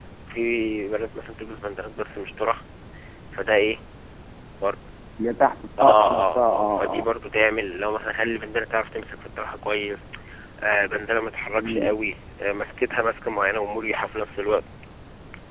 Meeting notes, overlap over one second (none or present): present